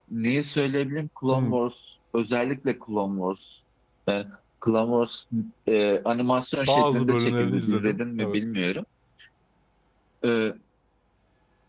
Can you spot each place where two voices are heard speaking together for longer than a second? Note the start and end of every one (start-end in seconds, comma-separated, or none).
6.7-8.4